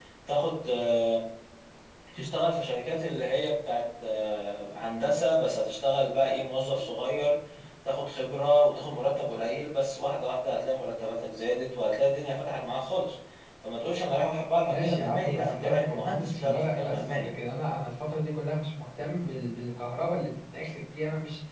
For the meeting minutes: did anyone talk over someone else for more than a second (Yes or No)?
Yes